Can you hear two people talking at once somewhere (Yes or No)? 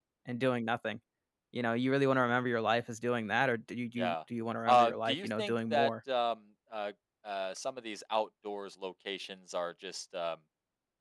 Yes